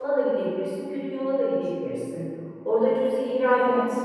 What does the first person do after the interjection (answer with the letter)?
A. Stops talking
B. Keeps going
B